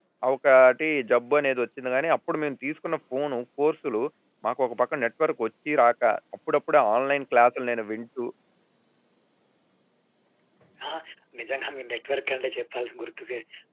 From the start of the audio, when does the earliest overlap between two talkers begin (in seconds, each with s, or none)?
none